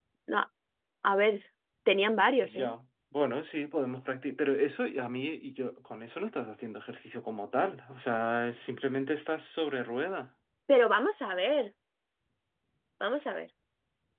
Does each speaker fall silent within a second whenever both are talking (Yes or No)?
Yes